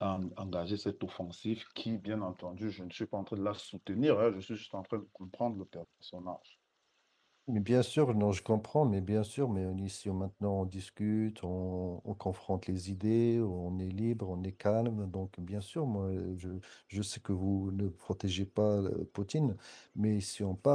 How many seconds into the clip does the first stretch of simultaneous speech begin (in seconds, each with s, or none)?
none